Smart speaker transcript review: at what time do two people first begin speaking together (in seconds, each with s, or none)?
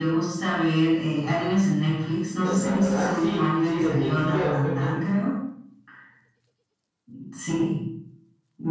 2.4 s